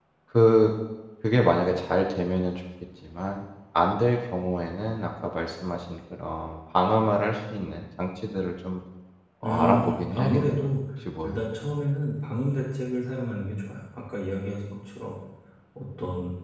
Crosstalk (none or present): present